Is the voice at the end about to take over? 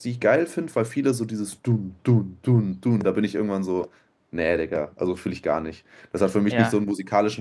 No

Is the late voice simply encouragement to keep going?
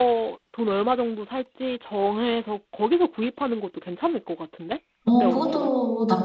No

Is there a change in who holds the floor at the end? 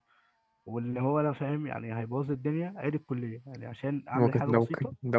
Yes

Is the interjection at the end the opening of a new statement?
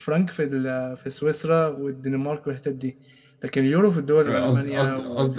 Yes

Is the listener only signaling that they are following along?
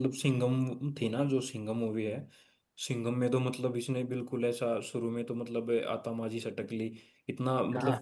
Yes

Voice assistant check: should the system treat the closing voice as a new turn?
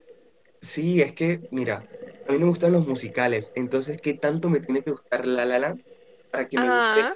No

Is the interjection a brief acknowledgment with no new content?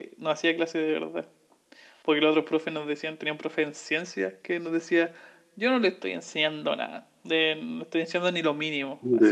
Yes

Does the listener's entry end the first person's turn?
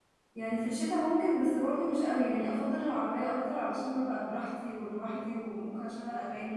No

